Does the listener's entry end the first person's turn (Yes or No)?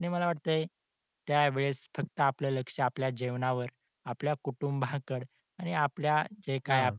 No